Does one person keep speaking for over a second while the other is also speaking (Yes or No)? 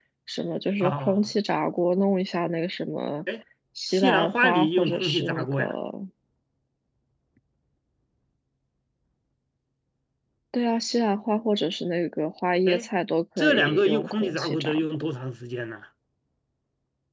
Yes